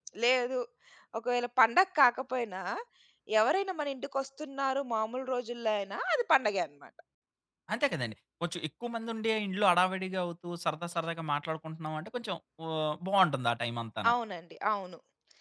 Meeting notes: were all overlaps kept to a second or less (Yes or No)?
Yes